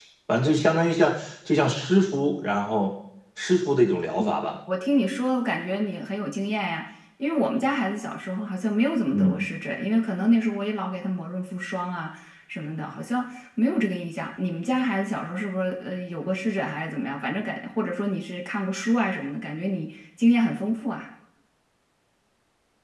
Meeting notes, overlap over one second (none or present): none